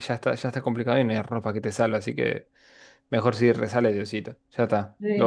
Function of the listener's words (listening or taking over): taking over